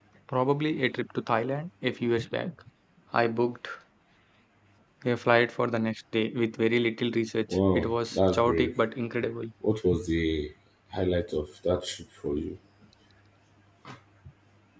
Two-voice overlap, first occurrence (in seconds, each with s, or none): 7.5 s